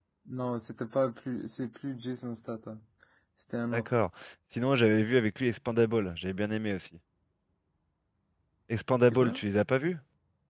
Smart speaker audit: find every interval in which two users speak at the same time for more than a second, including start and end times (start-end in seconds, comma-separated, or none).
none